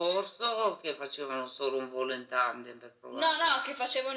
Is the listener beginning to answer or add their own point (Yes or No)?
Yes